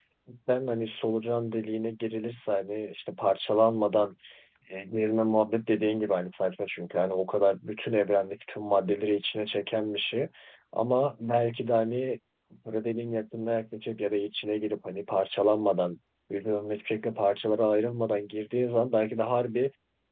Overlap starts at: none

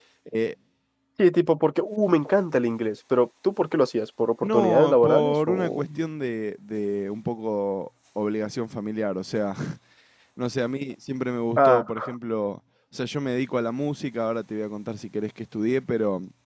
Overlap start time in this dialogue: 4.5 s

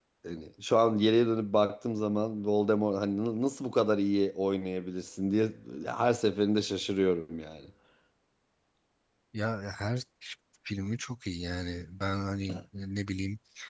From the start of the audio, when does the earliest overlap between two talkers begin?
none

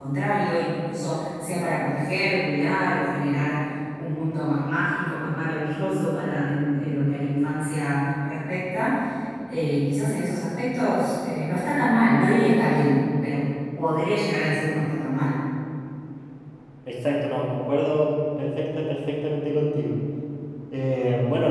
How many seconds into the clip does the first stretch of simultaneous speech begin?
none

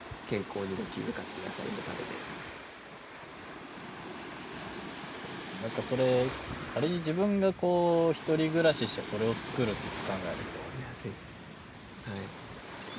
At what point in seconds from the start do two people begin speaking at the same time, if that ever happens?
none

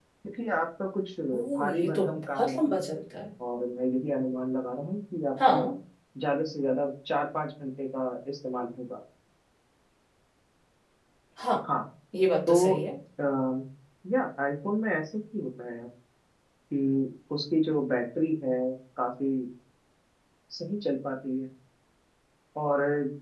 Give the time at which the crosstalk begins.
1.3 s

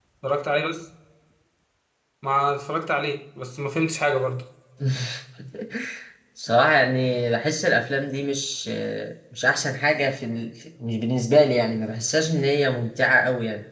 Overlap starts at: none

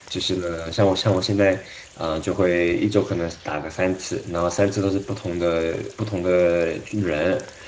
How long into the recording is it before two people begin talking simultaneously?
none

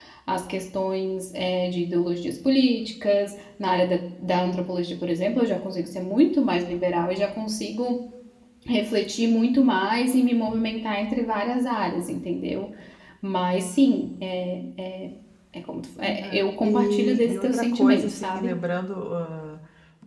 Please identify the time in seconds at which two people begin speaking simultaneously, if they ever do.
16.0 s

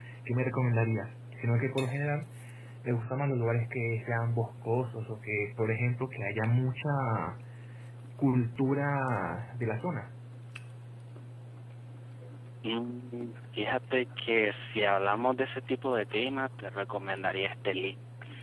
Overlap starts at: none

